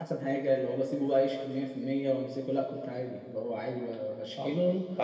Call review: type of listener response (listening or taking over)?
taking over